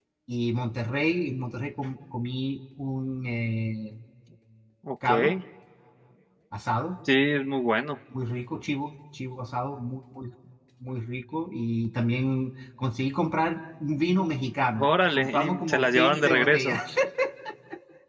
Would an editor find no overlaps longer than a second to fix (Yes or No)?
No